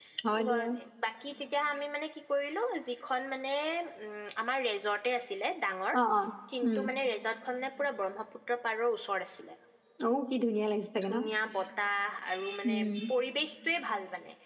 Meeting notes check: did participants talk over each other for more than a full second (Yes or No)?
No